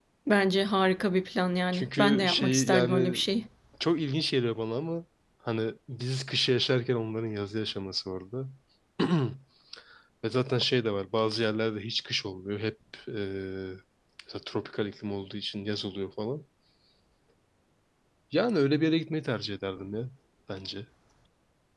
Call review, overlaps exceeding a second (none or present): present